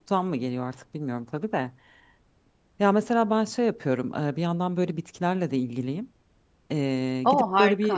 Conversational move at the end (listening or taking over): listening